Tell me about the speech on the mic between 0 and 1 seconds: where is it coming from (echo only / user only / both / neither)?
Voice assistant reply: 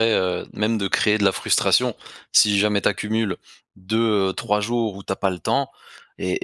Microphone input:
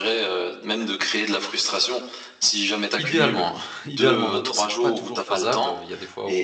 echo only